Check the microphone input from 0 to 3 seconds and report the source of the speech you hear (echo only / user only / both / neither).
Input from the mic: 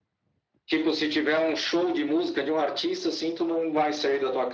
echo only